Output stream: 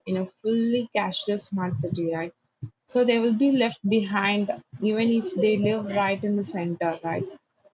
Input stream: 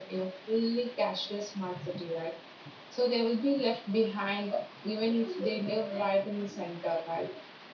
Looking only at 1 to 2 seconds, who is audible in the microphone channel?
echo only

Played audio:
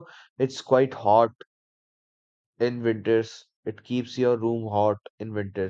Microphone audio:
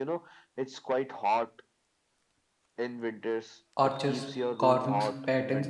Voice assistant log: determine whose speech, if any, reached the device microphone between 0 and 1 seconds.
echo only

